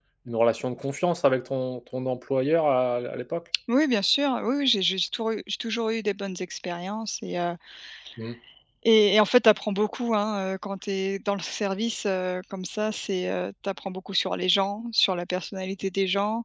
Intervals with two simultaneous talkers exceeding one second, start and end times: none

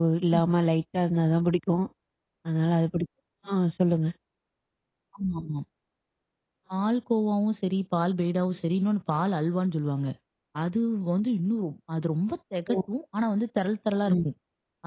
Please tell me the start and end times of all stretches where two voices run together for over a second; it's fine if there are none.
none

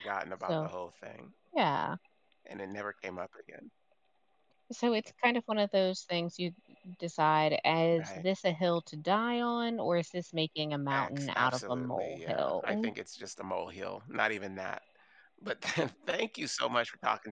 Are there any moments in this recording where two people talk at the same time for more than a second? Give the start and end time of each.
10.9-12.9

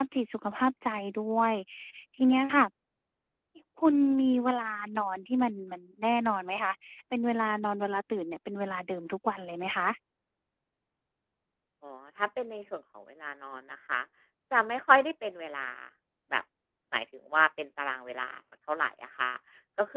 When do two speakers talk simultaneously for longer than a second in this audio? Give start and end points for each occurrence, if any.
none

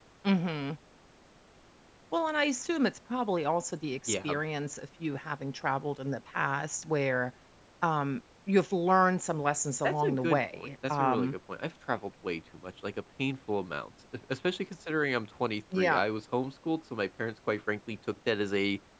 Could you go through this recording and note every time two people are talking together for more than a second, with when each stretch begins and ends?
9.8-11.3

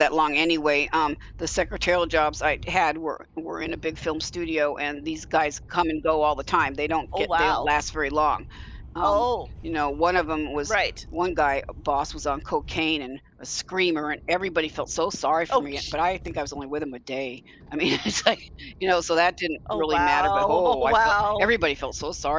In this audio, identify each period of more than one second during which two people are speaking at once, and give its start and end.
19.7-21.5

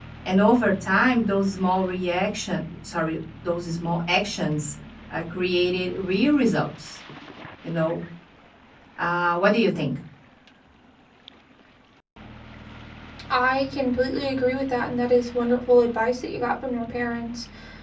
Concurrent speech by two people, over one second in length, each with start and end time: none

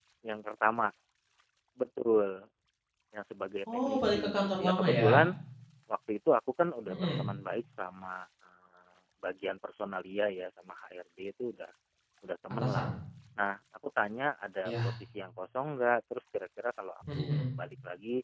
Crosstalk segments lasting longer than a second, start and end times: 3.7-5.1

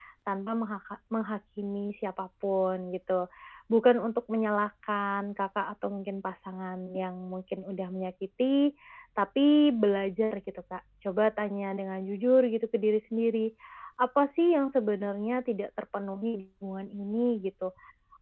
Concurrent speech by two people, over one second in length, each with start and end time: none

